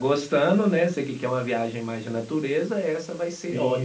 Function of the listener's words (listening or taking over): taking over